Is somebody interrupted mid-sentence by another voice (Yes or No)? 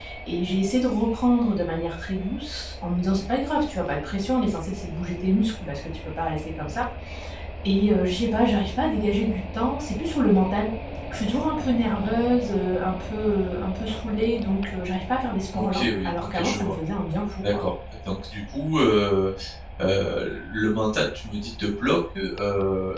Yes